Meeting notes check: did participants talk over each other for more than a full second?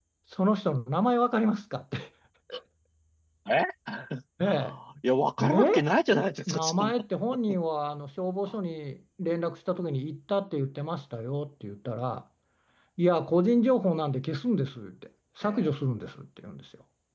No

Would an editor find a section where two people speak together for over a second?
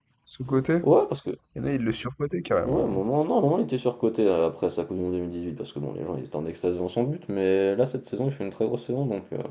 No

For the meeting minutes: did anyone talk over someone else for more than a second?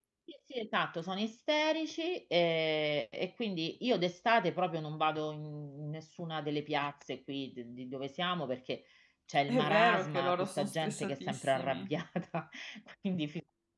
Yes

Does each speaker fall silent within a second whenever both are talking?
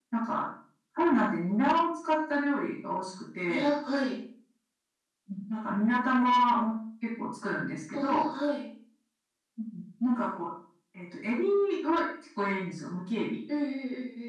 Yes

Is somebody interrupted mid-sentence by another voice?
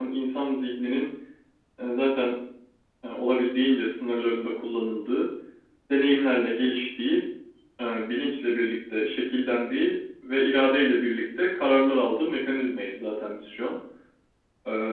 No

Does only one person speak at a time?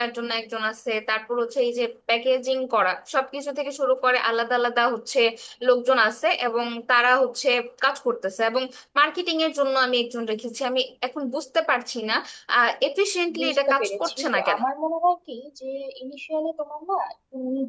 No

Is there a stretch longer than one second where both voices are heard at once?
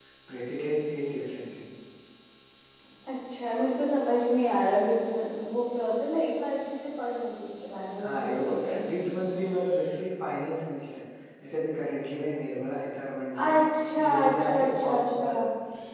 Yes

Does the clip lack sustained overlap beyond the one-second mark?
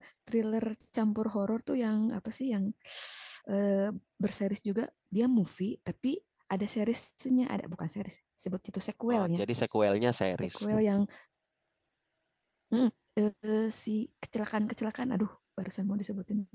Yes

